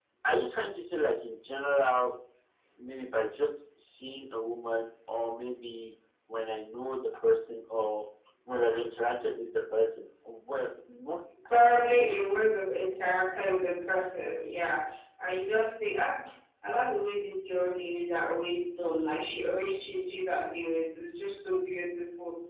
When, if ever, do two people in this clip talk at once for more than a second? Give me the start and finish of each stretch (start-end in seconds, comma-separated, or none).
none